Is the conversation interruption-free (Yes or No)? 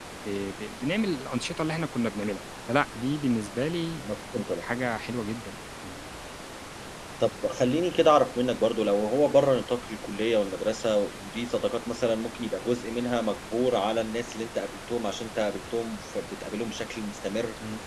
Yes